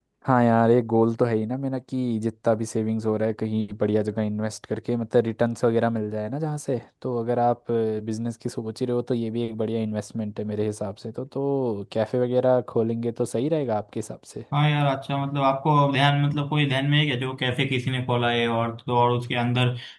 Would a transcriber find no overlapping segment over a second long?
Yes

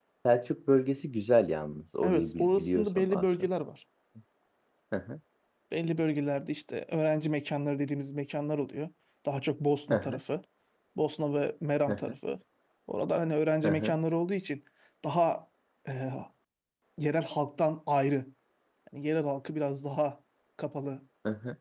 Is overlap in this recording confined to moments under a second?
No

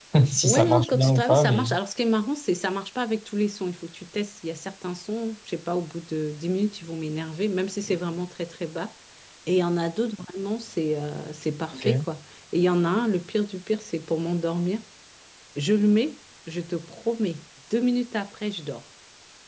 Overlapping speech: Yes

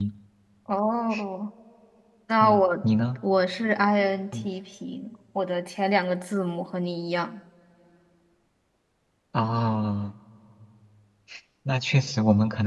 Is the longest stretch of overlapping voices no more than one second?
Yes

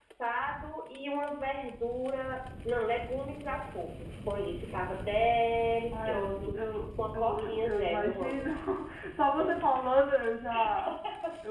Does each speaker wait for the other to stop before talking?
No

